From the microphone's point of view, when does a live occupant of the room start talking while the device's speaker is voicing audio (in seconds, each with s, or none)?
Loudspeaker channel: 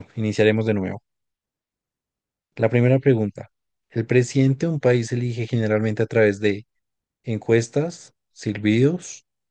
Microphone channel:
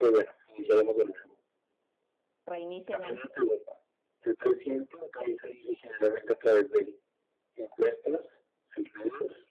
2.5 s